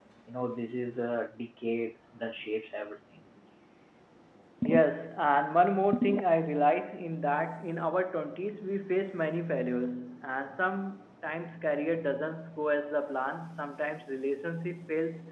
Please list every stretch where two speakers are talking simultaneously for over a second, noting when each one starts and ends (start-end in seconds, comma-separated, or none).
none